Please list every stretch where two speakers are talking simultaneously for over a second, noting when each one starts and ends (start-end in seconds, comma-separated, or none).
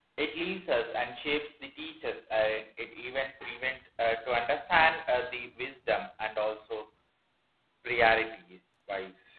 none